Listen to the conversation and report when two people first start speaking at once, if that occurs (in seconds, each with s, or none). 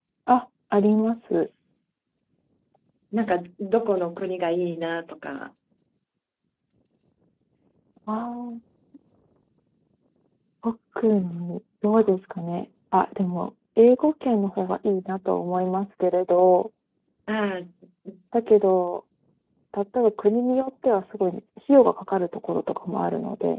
none